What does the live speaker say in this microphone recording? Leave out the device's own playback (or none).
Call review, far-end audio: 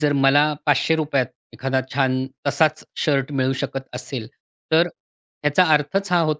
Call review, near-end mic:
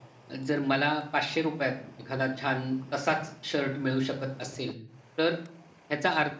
none